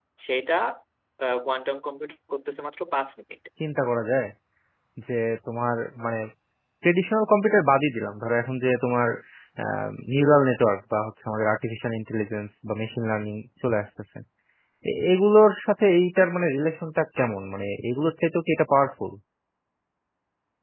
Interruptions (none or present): none